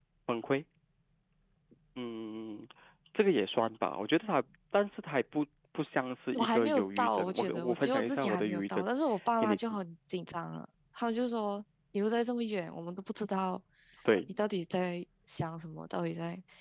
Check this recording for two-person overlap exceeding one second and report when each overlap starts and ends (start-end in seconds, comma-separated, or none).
6.3-8.8